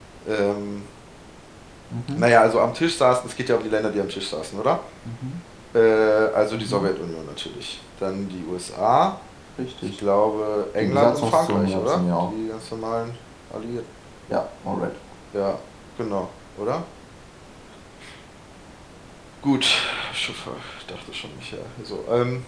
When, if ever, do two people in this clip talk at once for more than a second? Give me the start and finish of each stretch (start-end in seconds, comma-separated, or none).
10.8-12.3